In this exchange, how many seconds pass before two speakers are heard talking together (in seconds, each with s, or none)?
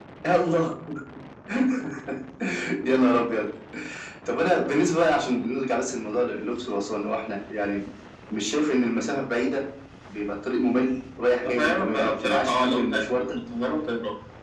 11.4 s